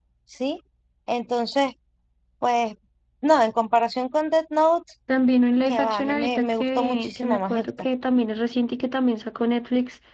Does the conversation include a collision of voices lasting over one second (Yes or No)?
Yes